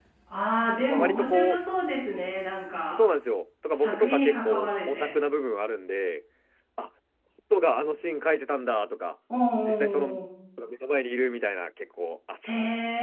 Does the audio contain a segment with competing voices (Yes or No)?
Yes